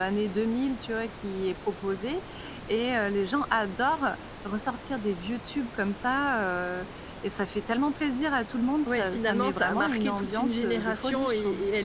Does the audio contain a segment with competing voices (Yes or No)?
Yes